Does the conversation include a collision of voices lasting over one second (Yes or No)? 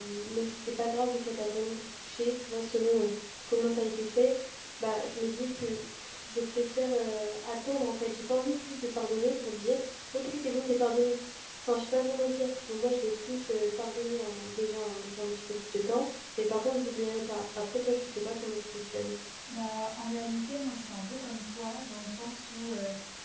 No